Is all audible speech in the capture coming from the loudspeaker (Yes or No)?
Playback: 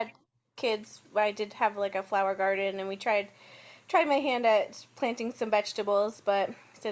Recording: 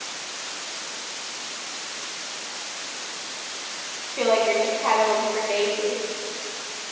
No